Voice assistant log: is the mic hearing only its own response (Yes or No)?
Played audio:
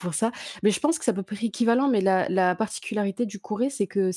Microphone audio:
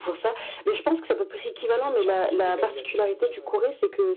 No